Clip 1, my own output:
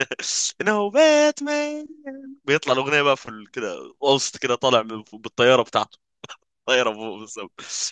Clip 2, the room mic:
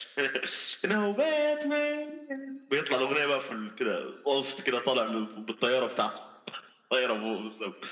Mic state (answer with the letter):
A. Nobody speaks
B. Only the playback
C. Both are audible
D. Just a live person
B